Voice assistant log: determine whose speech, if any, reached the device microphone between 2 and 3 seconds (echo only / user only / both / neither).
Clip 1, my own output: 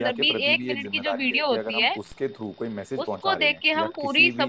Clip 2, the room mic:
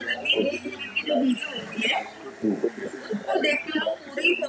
echo only